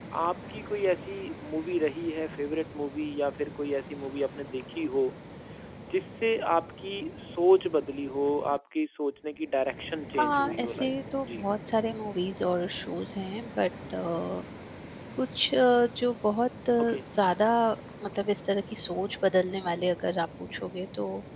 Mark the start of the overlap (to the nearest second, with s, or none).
10 s